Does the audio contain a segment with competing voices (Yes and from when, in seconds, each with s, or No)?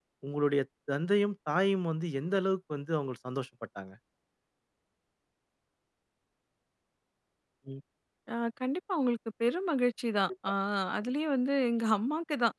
No